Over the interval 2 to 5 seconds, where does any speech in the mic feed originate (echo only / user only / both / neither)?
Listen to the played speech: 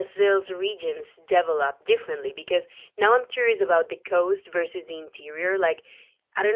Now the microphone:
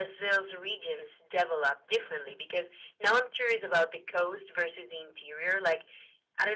echo only